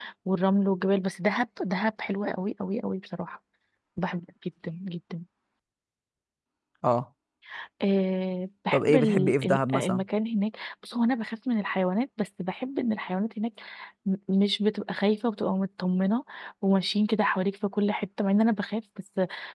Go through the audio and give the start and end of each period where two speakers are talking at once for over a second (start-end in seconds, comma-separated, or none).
8.7-10.0